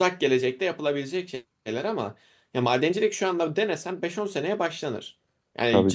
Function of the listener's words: listening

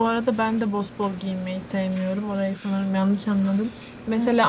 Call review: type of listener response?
listening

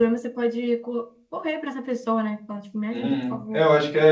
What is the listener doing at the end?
taking over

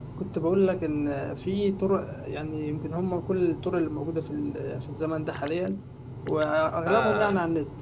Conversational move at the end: listening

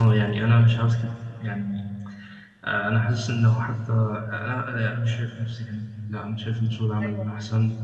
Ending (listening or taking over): taking over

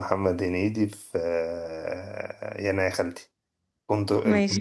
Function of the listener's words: taking over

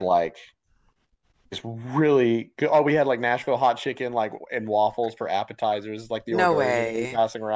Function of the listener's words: listening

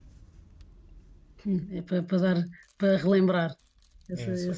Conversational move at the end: listening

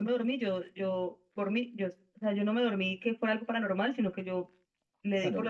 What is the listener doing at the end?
taking over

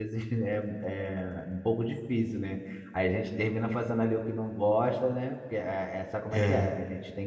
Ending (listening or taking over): listening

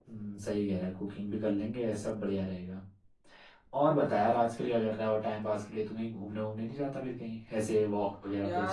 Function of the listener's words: taking over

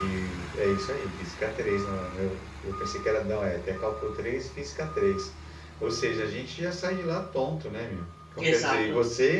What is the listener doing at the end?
listening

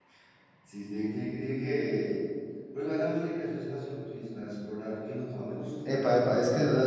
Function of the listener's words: taking over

